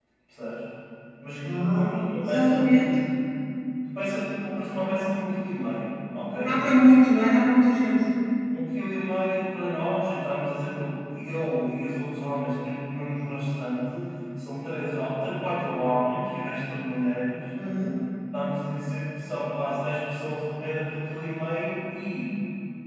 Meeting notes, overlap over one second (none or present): present